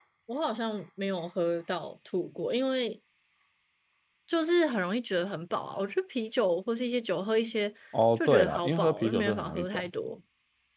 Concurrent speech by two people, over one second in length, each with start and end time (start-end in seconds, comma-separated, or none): 8.2-9.9